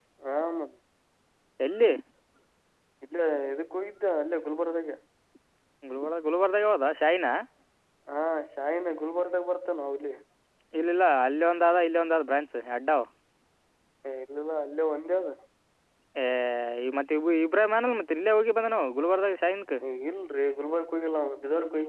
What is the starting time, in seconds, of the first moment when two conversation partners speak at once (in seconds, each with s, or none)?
none